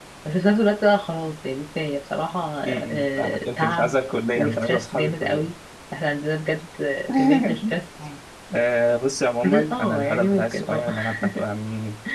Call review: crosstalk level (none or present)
present